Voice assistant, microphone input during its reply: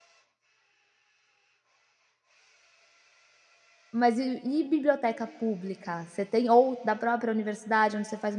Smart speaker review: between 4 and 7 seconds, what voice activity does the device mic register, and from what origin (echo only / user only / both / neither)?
user only